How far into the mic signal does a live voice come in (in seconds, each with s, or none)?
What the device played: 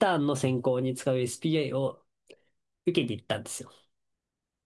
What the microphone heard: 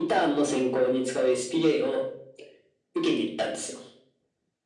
none